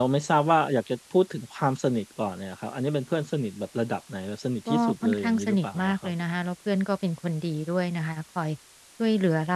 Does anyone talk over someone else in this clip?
Yes, from 4.7 s

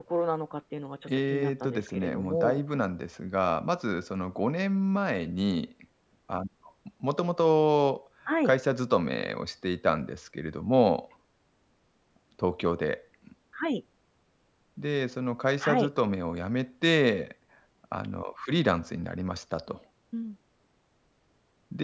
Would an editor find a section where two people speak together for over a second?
Yes, from 1.3 s

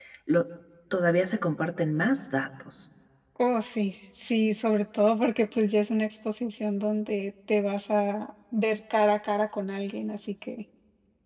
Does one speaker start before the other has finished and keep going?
No

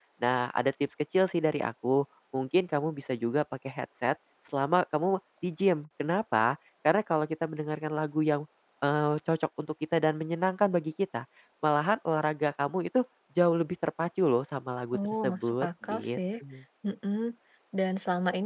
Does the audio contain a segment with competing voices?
Yes, from 14.9 s

